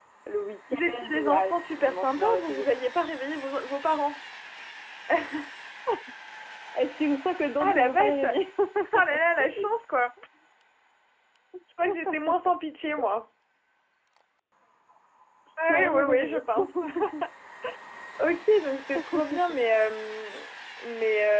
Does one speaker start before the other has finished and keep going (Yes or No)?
Yes